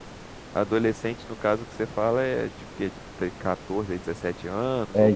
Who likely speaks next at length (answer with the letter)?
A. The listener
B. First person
A